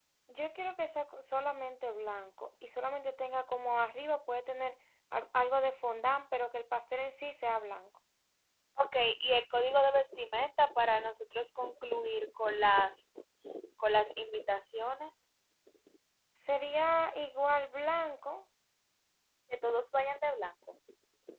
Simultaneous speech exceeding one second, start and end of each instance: none

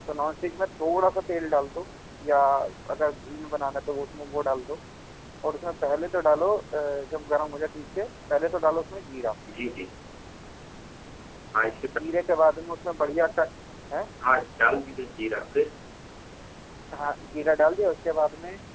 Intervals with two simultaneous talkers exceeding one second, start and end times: none

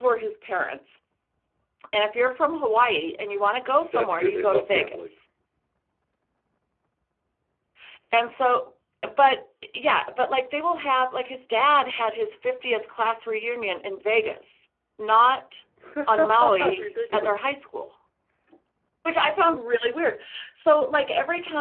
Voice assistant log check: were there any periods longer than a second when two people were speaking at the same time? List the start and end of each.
3.8-5.2, 16.1-17.4

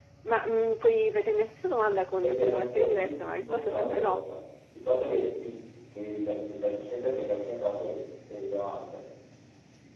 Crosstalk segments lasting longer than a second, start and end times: 2.2-4.2

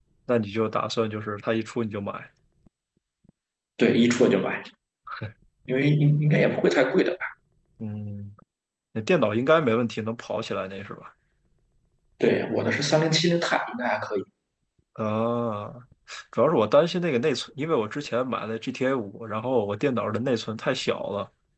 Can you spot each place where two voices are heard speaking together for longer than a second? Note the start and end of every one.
none

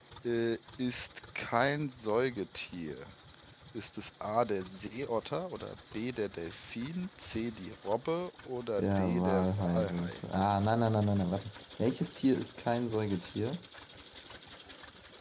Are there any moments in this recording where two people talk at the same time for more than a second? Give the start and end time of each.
8.8-10.1

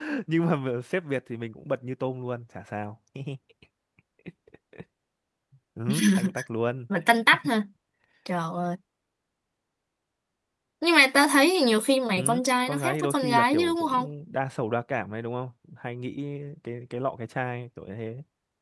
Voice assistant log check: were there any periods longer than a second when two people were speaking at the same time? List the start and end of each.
12.2-14.1

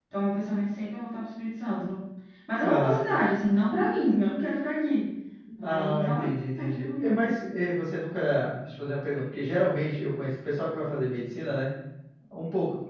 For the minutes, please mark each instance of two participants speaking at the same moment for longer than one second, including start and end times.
5.6-7.3

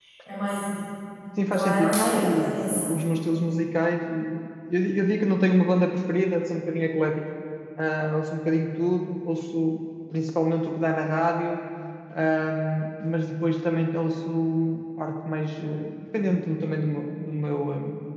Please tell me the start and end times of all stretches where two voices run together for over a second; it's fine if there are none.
1.5-2.9

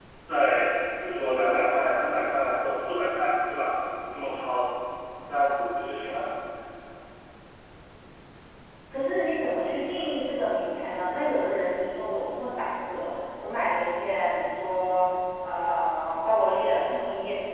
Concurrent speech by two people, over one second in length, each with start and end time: none

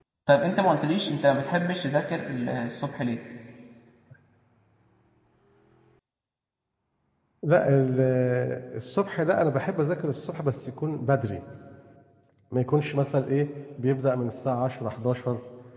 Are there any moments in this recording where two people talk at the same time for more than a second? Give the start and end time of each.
none

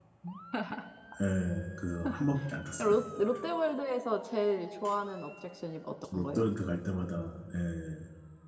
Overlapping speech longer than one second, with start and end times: none

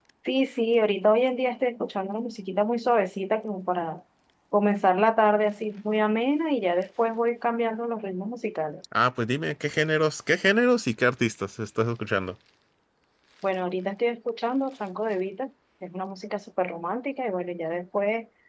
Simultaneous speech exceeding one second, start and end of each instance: none

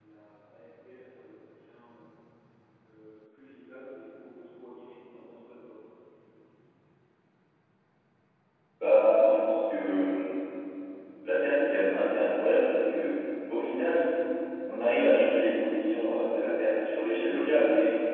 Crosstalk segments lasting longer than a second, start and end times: none

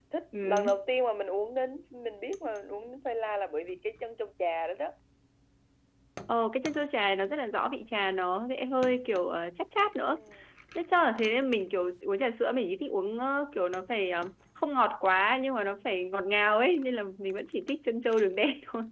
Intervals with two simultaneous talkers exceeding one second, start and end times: none

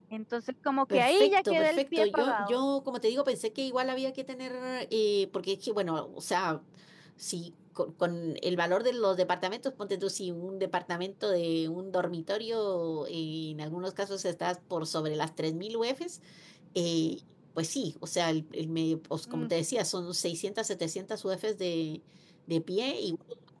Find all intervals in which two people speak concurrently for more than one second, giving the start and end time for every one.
0.9-2.6

